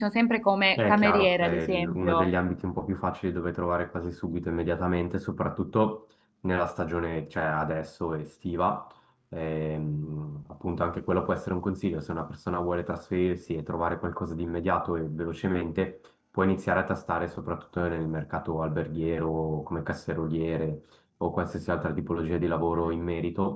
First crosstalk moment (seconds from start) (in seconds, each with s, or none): 0.8 s